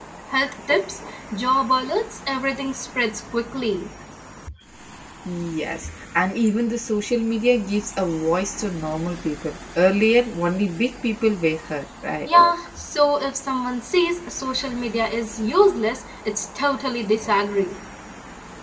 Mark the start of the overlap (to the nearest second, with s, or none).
none